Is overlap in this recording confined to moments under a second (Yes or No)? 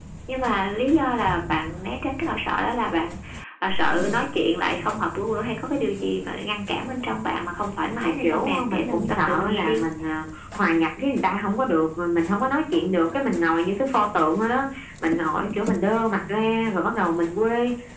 No